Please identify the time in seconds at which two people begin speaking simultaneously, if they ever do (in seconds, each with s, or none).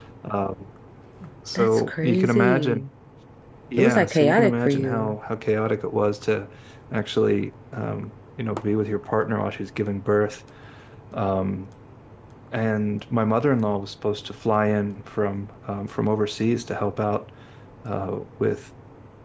1.6 s